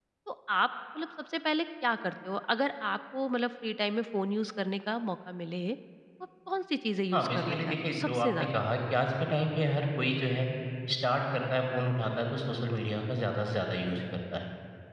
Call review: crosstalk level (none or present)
present